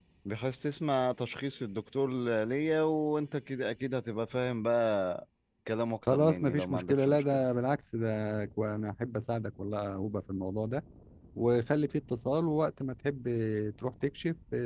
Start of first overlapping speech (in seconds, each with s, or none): 6.1 s